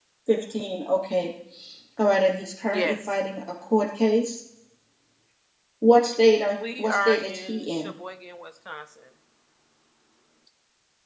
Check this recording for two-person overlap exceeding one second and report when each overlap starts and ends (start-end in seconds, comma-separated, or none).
6.6-7.9